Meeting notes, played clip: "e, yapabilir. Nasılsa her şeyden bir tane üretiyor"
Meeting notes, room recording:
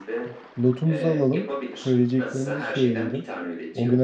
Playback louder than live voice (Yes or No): No